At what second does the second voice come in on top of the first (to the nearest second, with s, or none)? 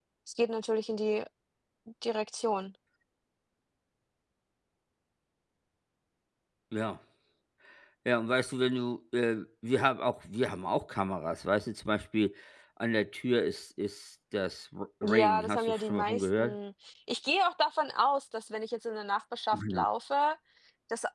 15 s